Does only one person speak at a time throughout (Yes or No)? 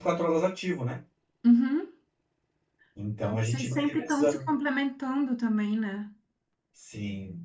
No